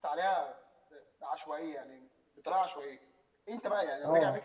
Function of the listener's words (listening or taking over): listening